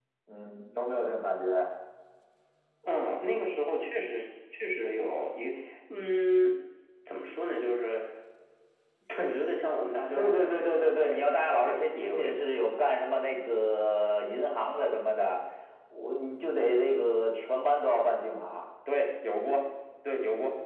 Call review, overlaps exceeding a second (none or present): present